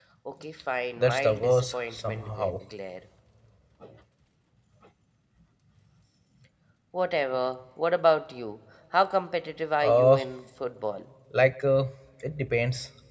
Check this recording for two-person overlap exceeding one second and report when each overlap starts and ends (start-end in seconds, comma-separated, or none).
1.0-2.5